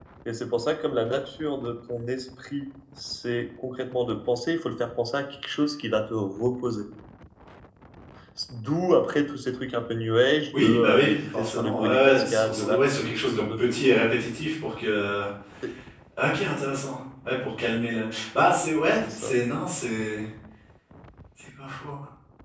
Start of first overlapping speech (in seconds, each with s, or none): 10.6 s